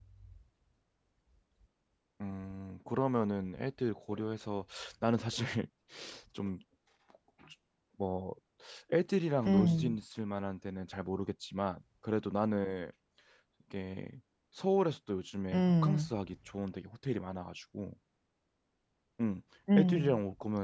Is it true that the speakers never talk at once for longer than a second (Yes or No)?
Yes